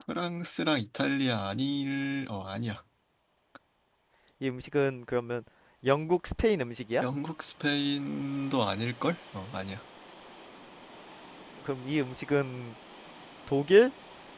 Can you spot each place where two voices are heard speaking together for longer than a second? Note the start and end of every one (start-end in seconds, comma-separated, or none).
none